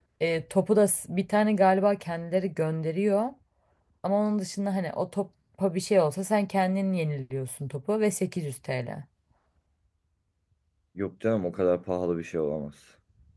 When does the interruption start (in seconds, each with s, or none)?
none